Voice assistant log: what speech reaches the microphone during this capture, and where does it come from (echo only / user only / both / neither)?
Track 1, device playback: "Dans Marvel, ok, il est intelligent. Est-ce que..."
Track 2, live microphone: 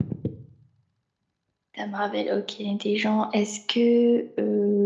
echo only